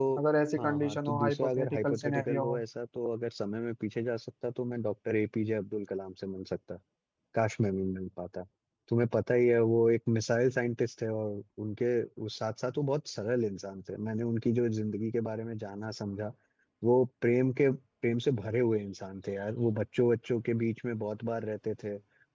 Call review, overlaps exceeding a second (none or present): present